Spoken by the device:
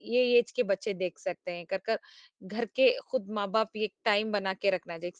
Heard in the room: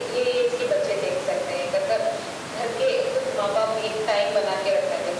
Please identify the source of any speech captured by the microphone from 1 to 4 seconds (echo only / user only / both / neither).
echo only